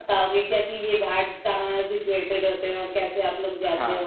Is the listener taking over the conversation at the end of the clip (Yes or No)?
Yes